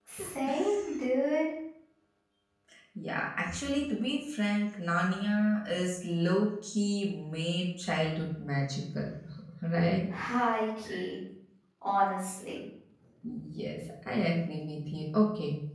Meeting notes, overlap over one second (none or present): none